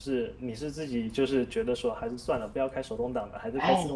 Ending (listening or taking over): taking over